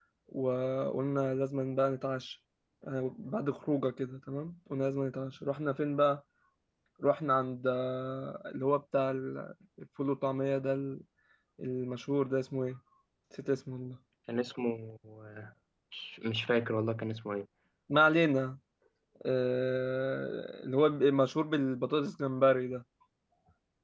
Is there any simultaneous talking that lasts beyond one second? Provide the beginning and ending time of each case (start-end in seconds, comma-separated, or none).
none